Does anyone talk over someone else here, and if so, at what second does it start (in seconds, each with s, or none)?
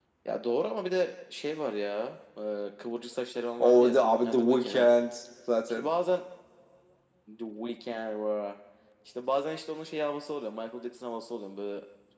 3.6 s